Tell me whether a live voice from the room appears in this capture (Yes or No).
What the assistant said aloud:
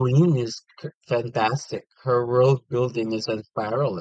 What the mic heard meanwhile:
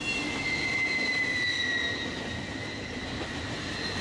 No